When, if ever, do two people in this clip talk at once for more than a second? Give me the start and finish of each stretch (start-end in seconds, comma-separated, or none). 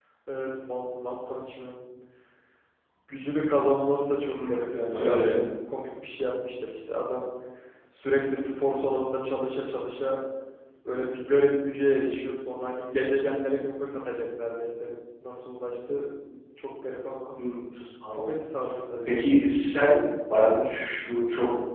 none